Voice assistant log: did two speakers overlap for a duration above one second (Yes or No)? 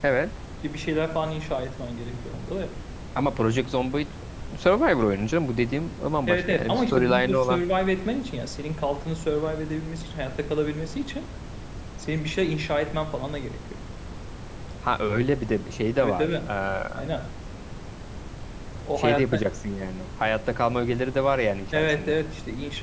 Yes